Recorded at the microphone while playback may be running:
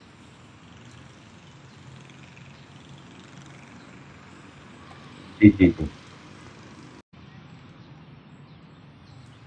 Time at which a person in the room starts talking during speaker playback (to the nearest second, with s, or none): 5 s